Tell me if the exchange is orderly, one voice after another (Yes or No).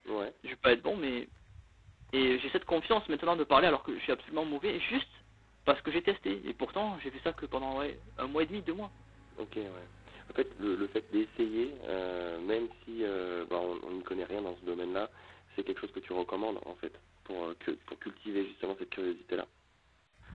Yes